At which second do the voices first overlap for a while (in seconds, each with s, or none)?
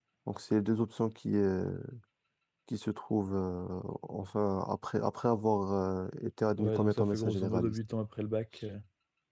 6.6 s